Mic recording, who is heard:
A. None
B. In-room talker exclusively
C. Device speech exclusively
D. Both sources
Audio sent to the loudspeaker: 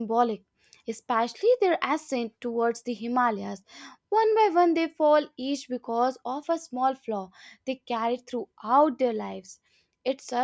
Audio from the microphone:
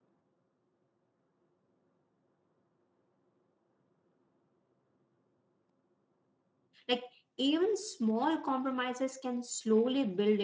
B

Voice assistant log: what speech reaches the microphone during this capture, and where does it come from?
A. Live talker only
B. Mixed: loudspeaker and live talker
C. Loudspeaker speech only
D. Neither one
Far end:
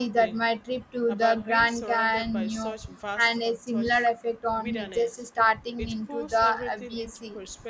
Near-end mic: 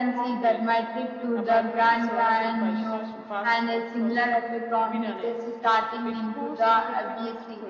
C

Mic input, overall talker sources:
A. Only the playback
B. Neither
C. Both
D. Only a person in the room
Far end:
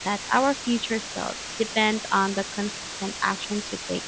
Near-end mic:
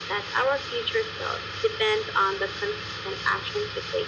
A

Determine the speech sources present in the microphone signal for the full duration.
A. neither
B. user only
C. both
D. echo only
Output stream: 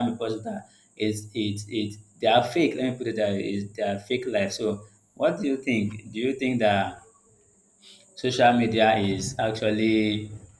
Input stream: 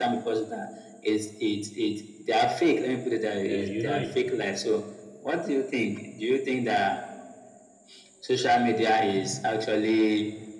C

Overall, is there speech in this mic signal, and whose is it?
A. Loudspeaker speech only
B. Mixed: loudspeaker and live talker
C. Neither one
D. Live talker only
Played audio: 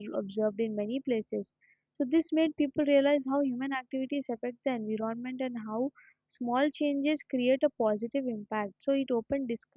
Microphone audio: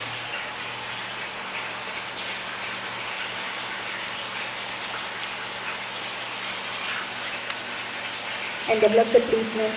D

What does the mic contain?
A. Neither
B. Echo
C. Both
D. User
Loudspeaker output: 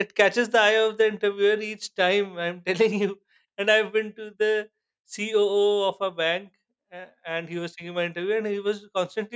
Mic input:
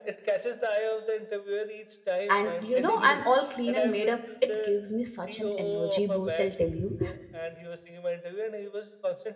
C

